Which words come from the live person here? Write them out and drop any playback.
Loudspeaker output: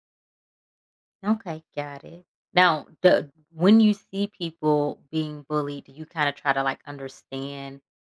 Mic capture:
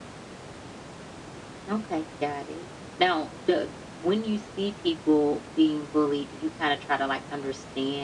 none

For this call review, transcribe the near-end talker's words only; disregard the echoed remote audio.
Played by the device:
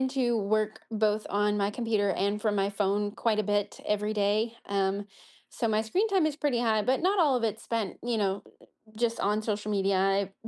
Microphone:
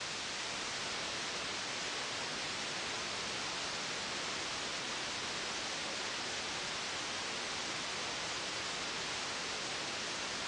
none

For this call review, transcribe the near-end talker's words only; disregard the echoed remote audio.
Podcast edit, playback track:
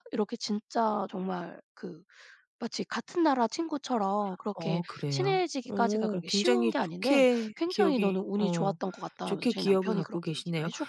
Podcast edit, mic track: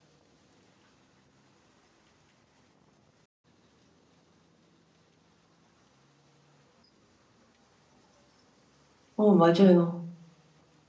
어 맞아요.

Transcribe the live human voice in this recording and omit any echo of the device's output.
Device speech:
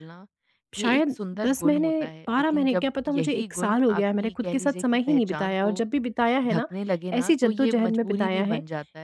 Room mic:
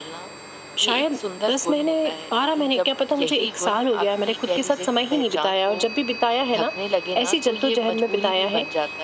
none

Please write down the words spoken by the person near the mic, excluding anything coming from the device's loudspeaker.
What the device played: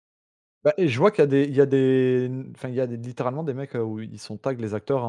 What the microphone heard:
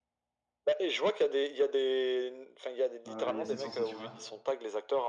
Heu, il y a cette sensation là.

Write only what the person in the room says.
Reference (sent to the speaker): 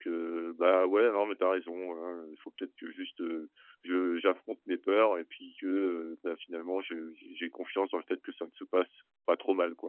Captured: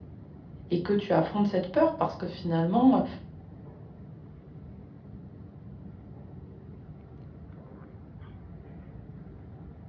et que tu affrontes cette peur parce que finalement,

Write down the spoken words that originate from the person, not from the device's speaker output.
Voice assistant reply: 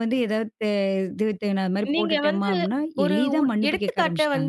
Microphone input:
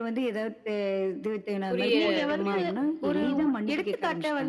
புரிய புரிய வைக்கணும். ம்.

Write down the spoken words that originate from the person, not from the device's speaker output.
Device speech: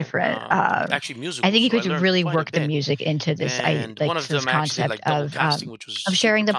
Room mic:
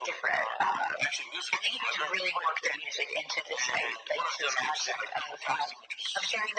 none

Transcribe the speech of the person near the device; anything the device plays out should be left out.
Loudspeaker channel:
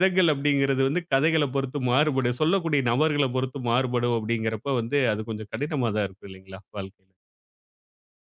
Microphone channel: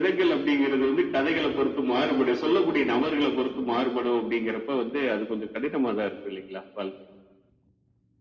none

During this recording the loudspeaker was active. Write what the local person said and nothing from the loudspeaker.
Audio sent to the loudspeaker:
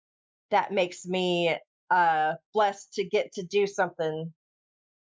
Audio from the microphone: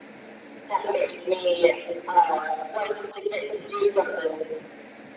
none

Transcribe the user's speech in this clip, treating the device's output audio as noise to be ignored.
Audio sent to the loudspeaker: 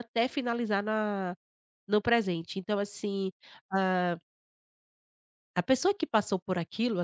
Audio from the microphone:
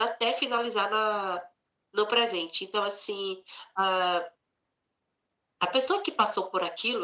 none

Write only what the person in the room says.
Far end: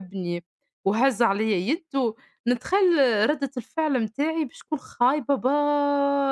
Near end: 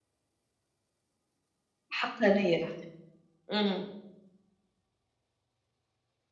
حقانية الحقيقة، إمم،

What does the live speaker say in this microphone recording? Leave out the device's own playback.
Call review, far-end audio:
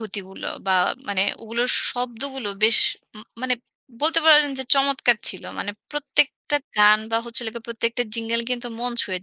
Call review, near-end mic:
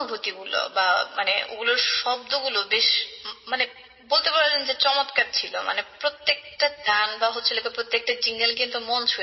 none

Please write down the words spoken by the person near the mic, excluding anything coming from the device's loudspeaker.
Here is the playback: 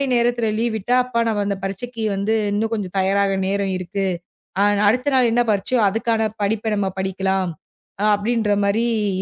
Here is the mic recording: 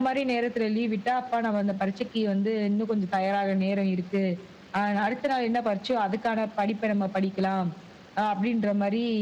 none

